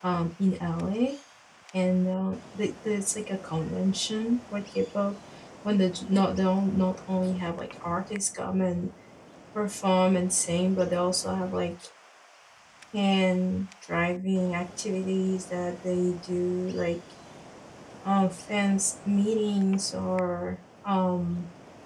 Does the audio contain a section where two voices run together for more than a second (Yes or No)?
No